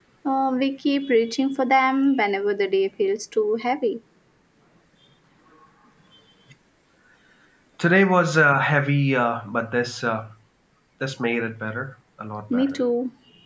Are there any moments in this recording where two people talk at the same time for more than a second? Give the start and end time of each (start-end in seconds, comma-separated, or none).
none